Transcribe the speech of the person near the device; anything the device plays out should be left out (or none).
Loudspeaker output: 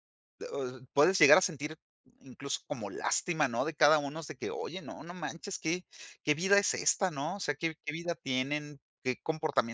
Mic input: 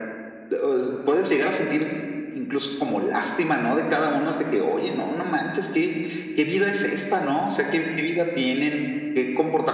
none